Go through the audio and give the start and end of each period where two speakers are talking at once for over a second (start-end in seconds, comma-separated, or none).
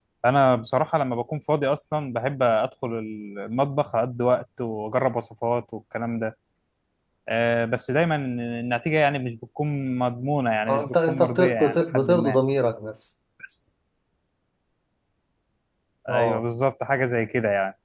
10.7-12.4